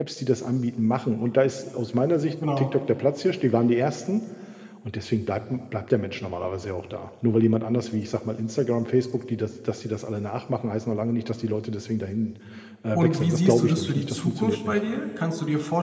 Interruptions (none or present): present